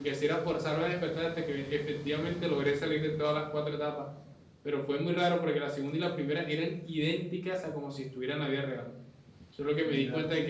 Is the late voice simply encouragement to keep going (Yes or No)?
Yes